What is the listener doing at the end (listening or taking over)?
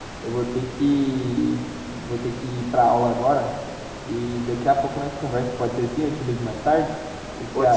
taking over